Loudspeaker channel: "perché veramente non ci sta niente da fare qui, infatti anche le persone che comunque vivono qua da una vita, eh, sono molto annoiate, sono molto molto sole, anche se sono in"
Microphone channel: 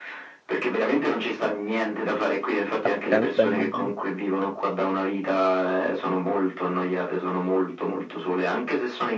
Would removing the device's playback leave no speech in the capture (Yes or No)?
No